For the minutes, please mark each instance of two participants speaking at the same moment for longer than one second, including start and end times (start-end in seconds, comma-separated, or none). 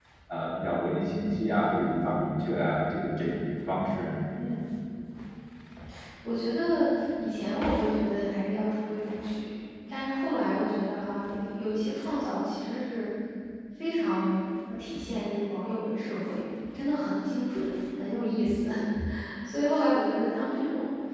none